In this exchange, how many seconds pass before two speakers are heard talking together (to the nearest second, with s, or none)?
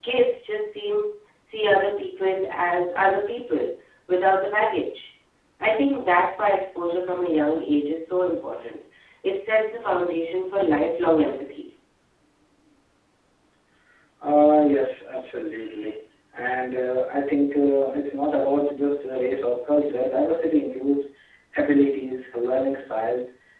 none